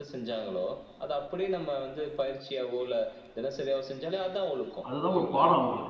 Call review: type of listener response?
taking over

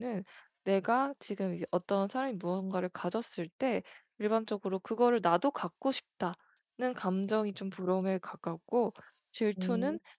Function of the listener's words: listening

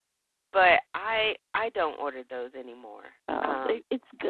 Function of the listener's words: taking over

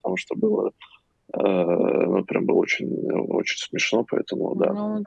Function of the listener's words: taking over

